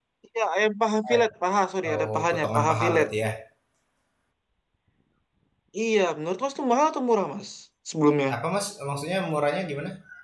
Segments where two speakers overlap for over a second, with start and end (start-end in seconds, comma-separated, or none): 1.8-3.1